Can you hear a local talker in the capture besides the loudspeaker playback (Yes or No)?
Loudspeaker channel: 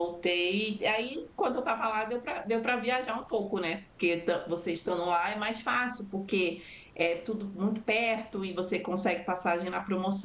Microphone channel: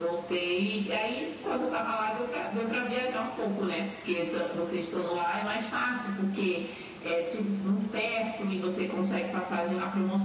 No